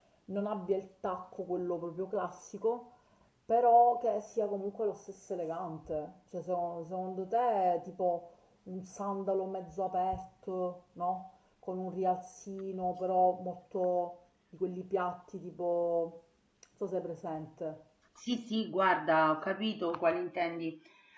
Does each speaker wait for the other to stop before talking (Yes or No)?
Yes